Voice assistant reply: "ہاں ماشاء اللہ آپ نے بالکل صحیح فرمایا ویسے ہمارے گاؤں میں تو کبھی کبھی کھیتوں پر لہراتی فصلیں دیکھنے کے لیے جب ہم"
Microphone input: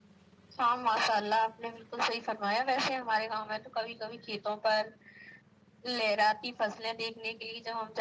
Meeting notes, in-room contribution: none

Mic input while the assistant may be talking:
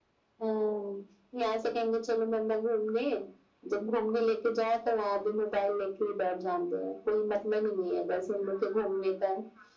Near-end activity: none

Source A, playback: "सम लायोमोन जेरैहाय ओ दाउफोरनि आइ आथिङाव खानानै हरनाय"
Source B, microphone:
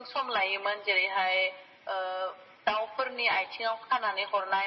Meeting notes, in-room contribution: none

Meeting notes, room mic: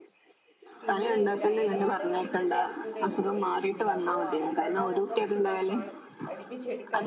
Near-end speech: present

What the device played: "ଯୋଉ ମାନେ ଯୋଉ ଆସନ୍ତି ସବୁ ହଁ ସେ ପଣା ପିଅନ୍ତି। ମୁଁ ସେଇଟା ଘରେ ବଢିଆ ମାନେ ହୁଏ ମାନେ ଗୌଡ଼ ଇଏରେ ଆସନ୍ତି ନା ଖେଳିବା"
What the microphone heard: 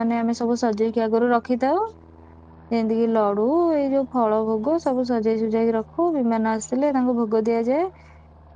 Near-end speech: present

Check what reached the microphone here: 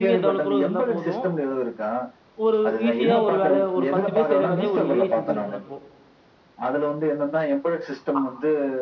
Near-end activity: present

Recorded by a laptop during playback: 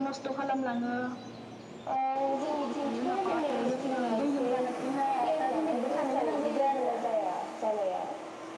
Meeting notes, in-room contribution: none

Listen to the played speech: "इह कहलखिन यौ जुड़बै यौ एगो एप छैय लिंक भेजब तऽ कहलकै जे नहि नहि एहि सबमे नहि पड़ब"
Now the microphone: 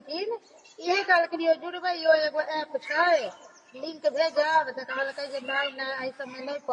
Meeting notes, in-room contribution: none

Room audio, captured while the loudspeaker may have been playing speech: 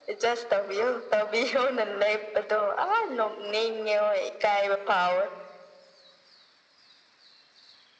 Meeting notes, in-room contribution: none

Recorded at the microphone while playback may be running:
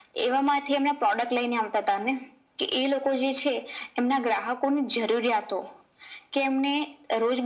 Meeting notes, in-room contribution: none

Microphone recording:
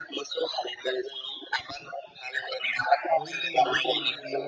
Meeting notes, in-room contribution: present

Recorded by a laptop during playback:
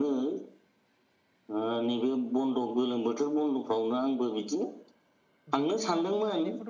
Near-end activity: present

